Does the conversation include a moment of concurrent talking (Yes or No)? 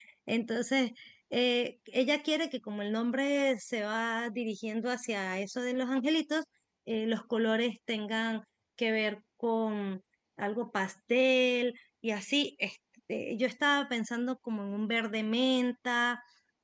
No